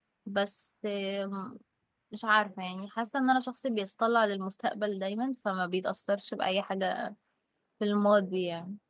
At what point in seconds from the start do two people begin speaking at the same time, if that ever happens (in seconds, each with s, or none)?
none